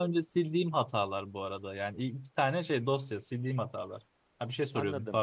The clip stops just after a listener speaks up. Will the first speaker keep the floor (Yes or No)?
No